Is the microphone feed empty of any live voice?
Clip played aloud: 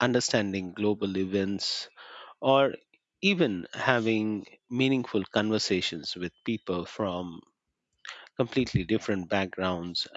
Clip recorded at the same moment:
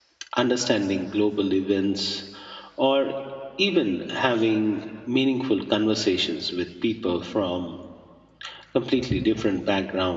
Yes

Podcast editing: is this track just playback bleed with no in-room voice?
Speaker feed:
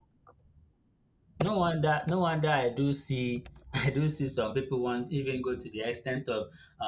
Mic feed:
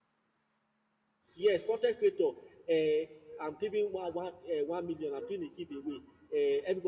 No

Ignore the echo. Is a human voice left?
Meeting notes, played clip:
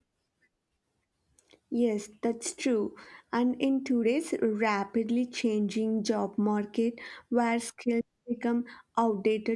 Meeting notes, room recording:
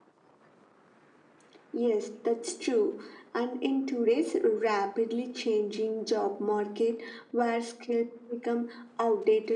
No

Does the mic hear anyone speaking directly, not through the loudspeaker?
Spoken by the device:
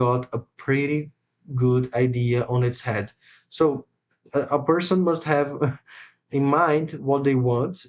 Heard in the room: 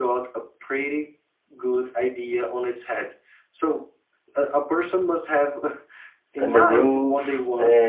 Yes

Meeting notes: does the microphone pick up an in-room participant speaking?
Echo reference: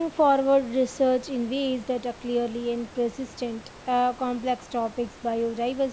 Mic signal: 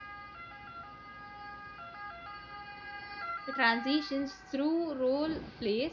Yes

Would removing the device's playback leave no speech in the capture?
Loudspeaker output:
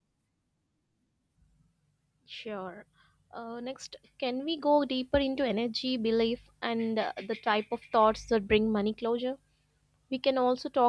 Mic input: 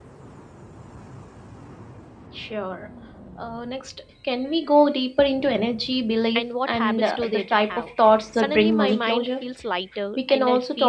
No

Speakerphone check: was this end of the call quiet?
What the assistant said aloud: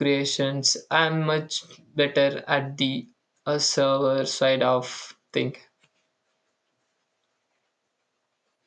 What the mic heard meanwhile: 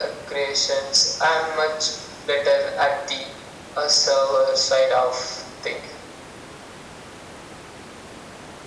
Yes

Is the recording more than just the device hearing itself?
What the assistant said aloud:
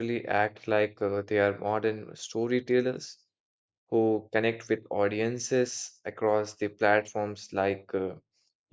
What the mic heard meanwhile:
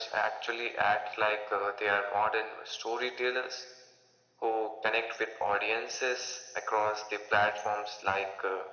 No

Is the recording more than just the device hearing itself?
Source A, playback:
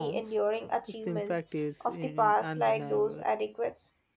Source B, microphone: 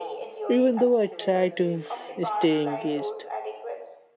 Yes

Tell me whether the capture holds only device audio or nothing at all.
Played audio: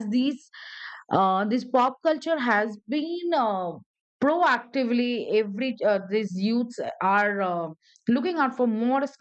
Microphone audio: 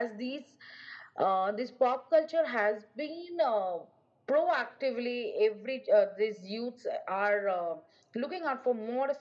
Yes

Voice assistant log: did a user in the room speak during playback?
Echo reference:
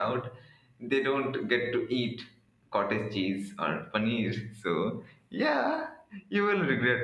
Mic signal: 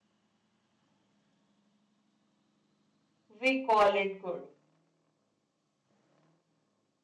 Yes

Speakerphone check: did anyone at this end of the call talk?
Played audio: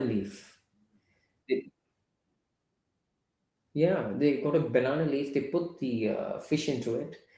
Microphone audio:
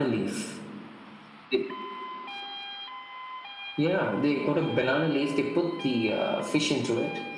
No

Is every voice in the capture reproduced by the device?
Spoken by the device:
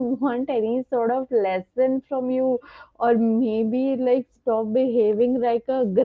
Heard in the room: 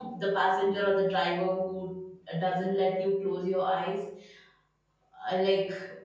No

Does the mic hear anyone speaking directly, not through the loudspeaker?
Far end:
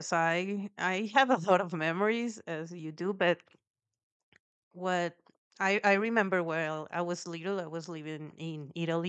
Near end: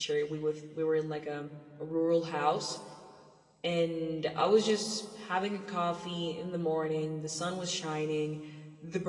Yes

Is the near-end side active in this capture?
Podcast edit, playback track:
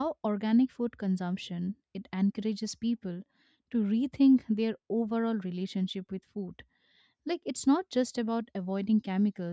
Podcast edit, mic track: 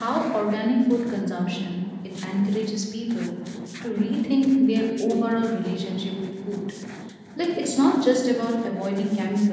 No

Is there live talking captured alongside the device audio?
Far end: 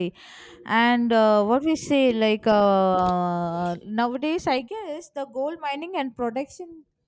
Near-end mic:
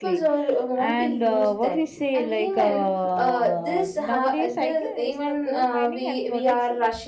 Yes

